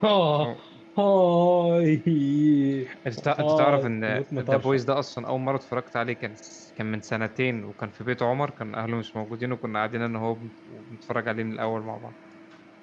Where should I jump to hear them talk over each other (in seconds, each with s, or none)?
3.4 s